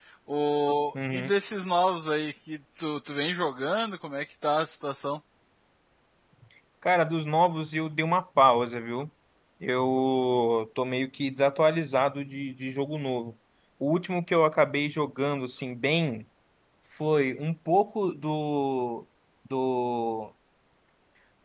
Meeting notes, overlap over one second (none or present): none